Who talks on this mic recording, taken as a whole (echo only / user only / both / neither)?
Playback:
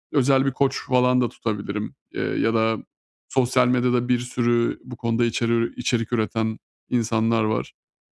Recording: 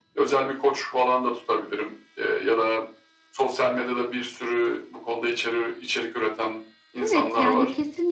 both